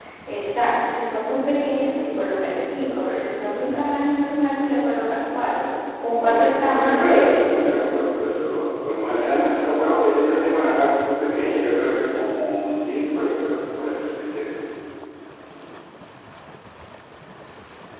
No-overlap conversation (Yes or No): No